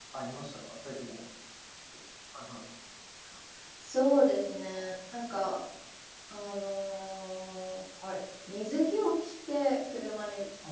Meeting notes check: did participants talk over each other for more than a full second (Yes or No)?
No